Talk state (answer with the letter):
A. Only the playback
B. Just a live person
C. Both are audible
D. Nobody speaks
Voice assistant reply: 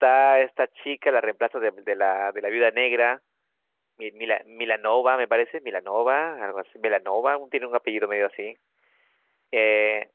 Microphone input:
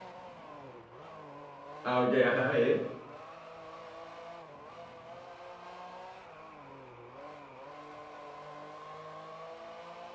B